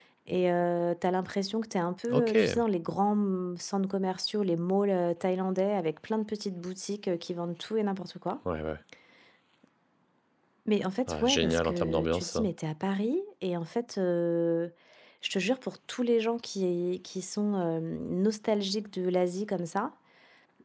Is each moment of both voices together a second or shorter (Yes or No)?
No